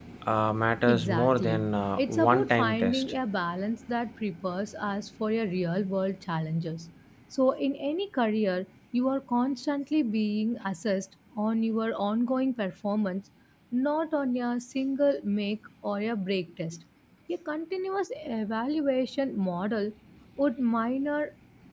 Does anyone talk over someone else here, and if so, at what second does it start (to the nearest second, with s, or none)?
1 s